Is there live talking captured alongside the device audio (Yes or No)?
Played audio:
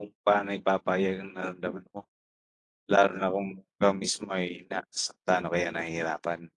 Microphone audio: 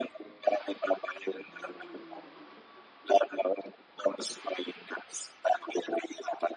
No